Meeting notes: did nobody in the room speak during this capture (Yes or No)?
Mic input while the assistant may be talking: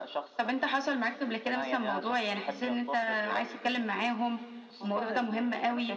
Yes